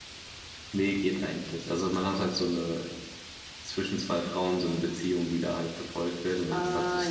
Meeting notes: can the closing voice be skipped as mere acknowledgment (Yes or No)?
No